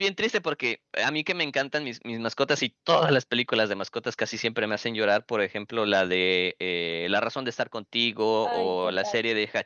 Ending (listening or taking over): listening